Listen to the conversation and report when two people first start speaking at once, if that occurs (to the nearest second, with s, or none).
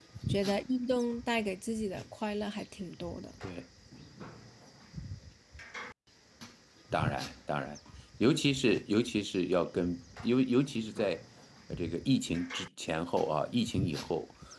none